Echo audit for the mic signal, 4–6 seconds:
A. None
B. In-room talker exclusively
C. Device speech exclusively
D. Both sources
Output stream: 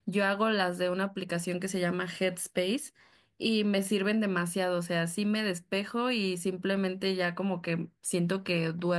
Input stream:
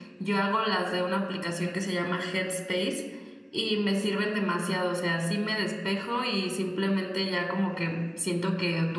C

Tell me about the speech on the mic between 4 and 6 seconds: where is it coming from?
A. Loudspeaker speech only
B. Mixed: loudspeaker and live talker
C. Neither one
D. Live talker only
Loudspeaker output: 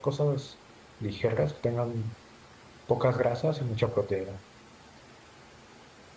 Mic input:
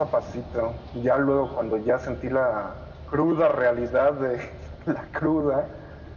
D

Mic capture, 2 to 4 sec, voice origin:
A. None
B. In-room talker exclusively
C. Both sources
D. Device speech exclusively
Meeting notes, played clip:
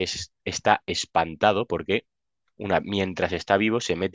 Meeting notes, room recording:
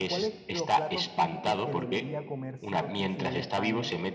C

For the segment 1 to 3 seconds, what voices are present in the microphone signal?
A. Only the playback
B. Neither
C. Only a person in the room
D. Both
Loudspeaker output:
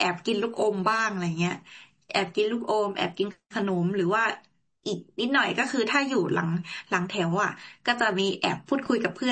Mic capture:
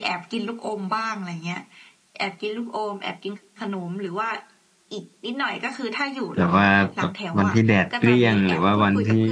A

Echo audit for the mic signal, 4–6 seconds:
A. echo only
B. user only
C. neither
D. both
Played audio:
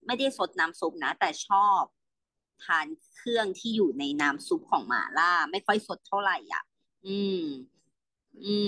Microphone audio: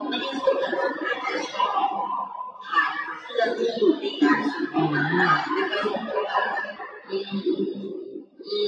D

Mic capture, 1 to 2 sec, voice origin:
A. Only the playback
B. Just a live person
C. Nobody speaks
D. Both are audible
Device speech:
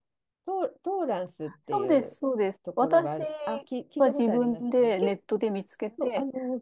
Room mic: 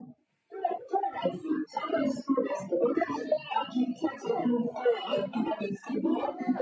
A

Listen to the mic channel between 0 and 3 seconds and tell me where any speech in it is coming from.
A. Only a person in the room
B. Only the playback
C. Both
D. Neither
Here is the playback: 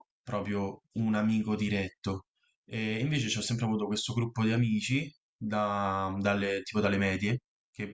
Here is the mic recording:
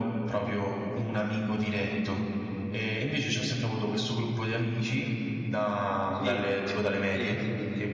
B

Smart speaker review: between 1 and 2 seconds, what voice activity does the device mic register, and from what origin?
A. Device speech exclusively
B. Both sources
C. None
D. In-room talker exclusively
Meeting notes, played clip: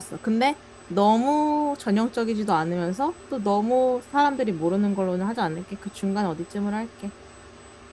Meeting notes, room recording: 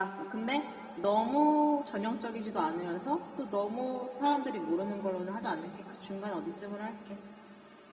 A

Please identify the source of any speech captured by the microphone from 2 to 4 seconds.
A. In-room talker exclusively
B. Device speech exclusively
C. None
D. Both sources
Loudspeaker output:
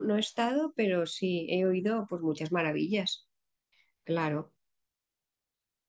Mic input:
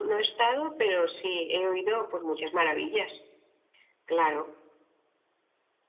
B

